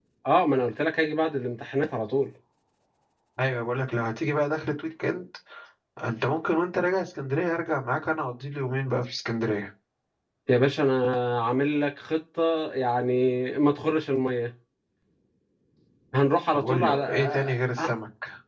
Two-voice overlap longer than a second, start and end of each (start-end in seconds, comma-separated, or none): 16.5-17.9